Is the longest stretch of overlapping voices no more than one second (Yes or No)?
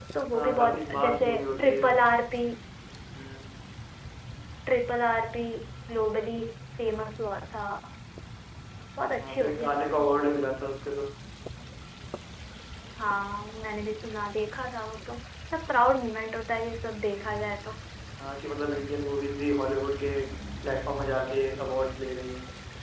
No